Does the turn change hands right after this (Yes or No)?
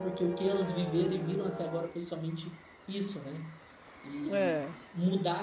No